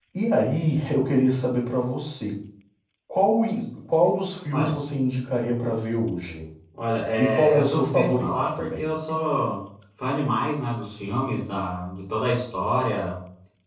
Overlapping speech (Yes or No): Yes